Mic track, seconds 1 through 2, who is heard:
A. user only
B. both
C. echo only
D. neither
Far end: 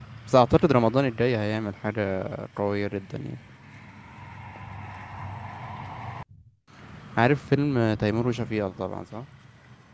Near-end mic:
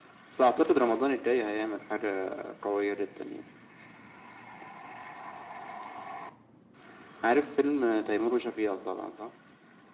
C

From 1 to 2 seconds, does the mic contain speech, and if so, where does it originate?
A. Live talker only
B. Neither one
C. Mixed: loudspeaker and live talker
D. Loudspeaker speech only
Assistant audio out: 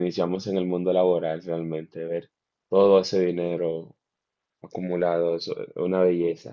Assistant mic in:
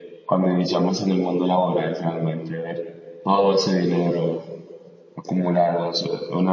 D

